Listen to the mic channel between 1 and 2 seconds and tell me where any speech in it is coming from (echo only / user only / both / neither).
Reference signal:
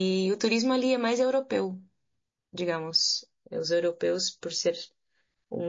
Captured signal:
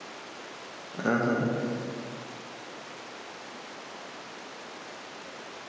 user only